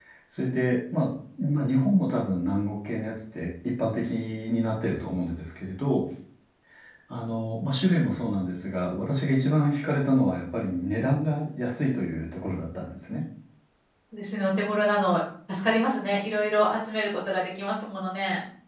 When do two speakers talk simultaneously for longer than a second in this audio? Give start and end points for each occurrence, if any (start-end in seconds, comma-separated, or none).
none